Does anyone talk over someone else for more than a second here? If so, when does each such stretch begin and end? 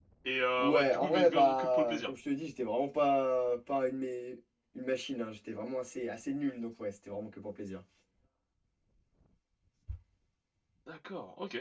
0.6-2.1

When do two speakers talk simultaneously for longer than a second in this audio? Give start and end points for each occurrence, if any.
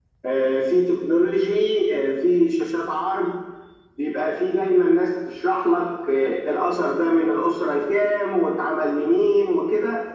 none

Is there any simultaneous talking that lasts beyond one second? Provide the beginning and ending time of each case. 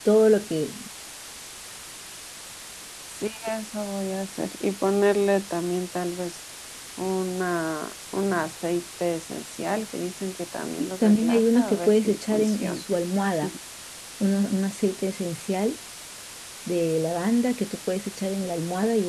10.8-12.8

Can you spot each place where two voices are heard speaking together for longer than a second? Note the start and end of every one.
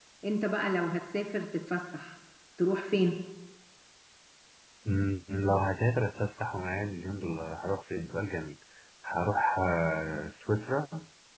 none

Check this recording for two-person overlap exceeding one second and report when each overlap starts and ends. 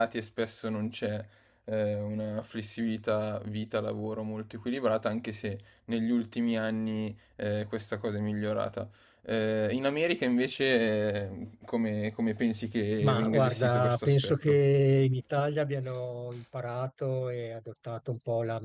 13.0-14.6

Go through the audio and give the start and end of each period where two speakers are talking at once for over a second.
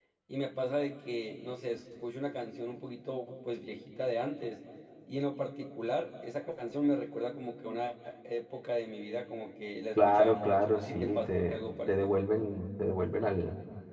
10.0-12.2

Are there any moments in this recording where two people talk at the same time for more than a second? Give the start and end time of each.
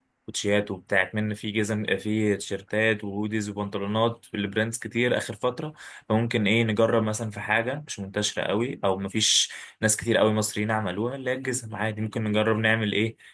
none

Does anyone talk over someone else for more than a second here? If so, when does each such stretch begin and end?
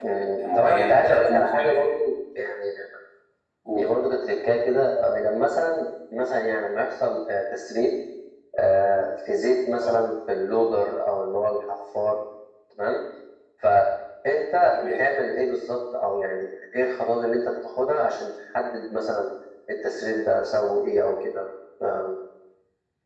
0.5-1.8

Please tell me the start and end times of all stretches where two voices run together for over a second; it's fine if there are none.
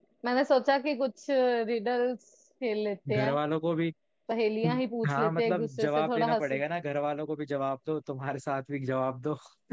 5.1-6.6

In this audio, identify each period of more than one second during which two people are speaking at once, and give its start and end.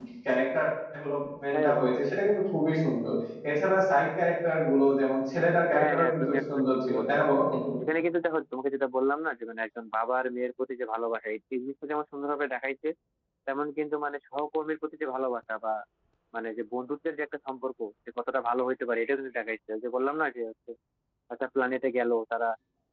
5.7-7.4

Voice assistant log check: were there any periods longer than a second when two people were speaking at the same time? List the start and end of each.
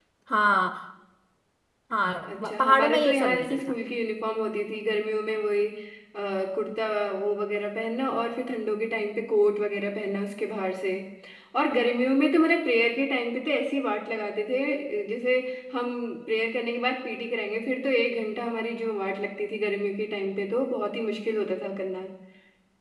2.3-3.7

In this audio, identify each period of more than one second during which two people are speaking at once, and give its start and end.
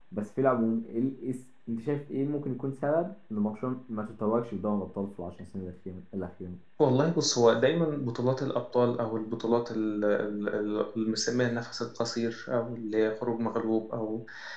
none

